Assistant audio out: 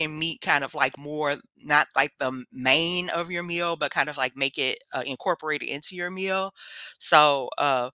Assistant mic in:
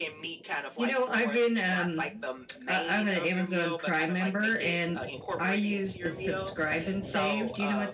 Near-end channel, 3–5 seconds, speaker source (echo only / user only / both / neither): both